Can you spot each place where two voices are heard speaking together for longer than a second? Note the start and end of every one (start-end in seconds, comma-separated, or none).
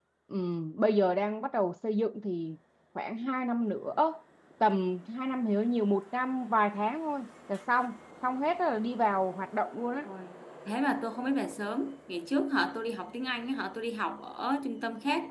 none